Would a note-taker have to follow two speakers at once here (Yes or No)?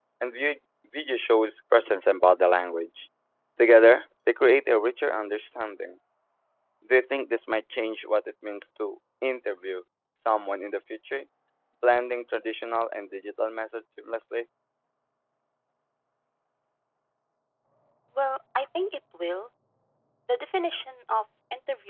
No